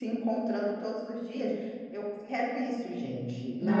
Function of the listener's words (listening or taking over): taking over